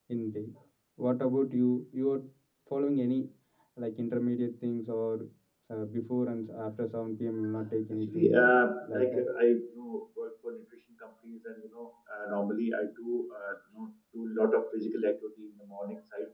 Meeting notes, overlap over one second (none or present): none